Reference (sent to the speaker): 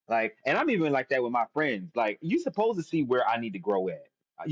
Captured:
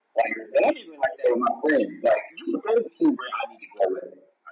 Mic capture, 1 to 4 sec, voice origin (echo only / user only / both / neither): echo only